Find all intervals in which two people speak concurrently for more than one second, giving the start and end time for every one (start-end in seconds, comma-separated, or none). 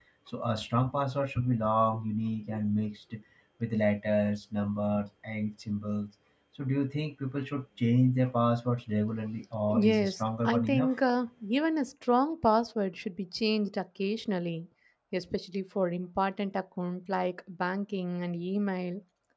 9.7-10.9